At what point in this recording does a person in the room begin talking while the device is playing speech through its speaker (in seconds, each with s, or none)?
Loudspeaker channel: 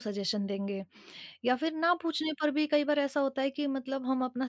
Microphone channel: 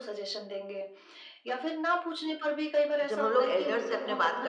3.1 s